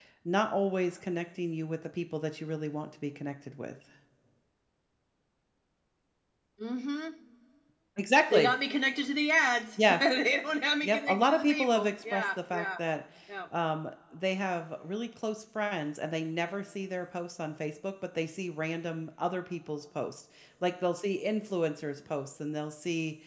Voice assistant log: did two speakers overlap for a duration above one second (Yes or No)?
Yes